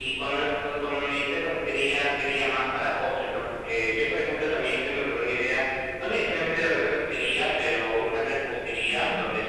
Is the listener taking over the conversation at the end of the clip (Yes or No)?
No